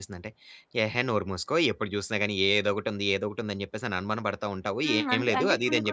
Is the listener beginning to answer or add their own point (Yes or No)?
Yes